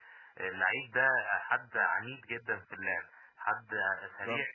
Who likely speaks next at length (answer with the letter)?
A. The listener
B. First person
B